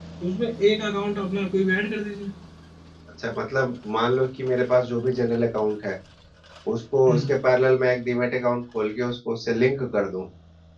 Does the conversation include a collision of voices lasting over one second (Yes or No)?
No